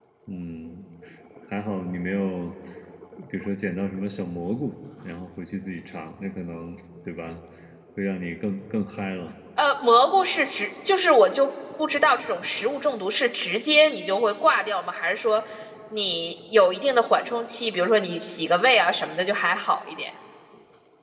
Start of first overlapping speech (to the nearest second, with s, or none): none